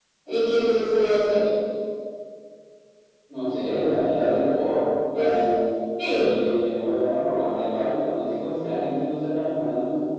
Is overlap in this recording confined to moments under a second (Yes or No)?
Yes